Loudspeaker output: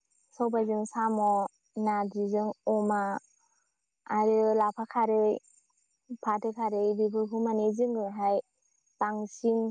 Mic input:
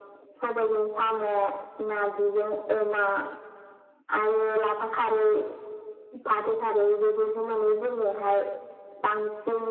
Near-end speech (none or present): none